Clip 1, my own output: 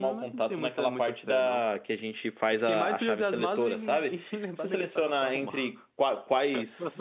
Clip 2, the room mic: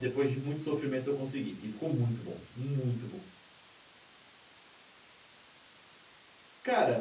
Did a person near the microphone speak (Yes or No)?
Yes